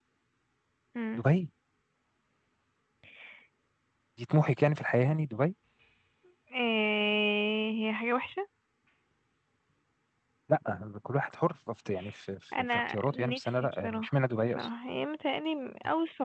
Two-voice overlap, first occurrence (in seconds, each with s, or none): 12.7 s